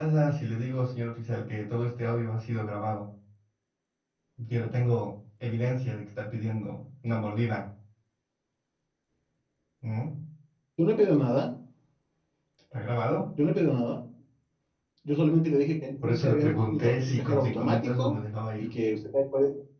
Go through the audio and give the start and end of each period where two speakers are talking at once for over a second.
16.0-18.2

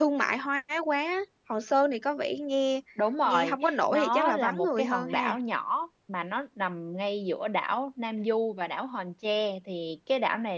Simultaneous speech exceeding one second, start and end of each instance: 3.2-5.3

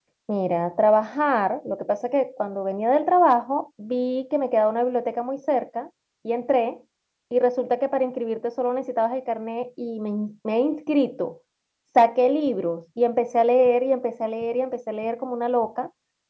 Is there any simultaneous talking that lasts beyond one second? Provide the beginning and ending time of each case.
none

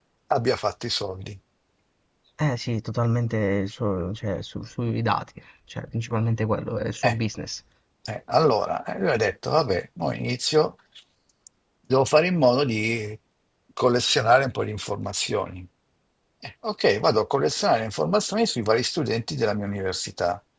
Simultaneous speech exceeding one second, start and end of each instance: none

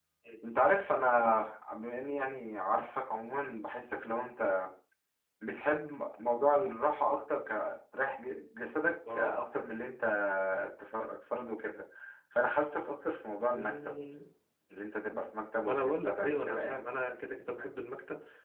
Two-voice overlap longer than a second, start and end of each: 15.6-16.8

